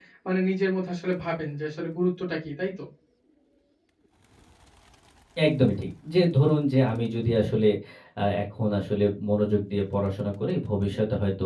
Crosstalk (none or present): none